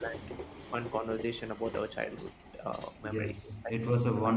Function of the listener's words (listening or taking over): taking over